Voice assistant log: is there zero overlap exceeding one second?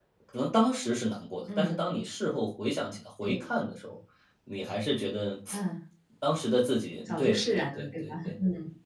No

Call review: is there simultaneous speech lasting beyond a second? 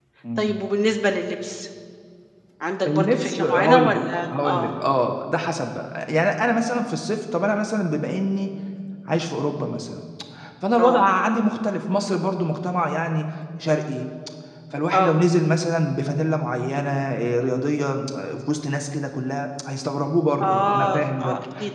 Yes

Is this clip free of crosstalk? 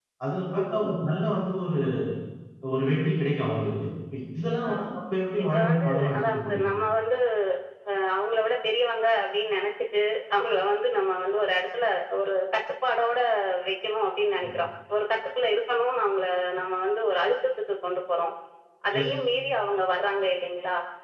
No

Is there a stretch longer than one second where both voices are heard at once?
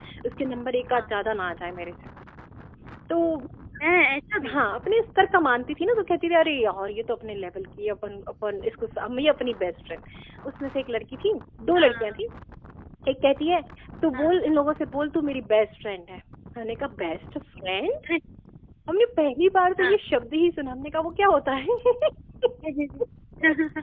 No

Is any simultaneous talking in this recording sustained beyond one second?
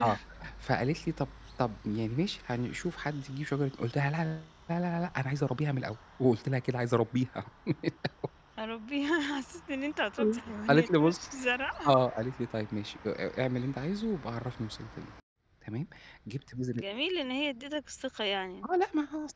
No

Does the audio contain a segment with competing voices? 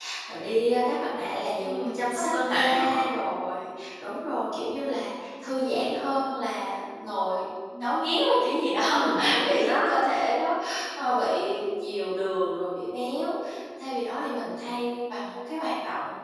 Yes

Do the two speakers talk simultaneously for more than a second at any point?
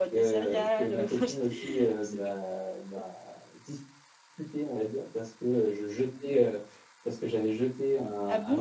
Yes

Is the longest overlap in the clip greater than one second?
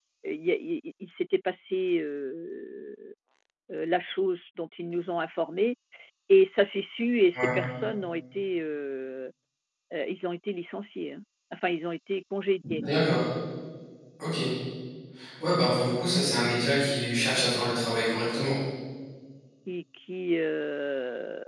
No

